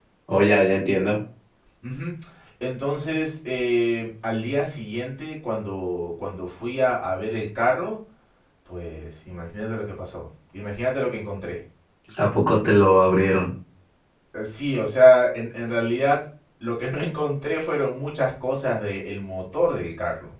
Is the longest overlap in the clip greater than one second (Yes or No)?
No